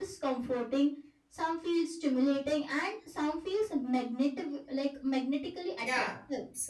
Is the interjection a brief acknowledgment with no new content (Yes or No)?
No